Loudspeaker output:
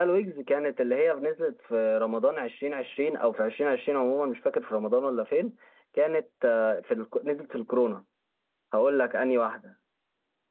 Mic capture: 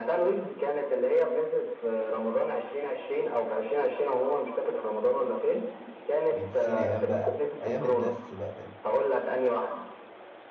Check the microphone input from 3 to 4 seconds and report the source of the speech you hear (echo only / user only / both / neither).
echo only